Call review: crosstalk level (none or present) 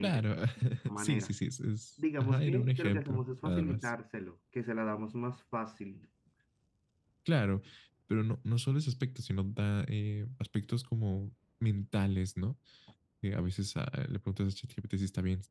present